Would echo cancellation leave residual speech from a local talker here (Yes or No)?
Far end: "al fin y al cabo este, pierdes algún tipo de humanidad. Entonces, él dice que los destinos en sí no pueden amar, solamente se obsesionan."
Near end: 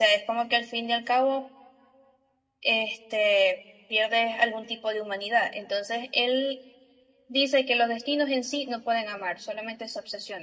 No